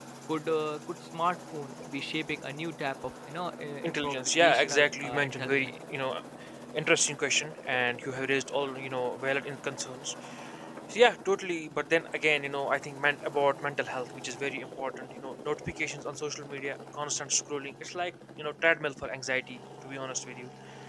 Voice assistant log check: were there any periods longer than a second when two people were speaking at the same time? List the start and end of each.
3.8-5.7

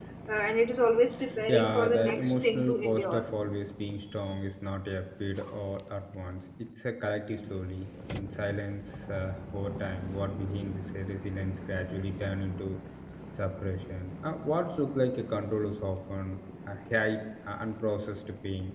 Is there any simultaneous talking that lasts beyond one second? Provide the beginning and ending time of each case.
1.5-3.3

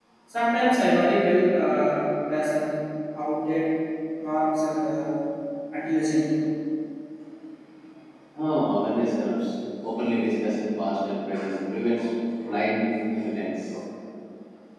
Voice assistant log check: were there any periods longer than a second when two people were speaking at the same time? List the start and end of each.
none

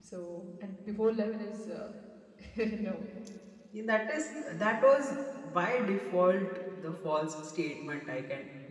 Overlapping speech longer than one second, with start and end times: none

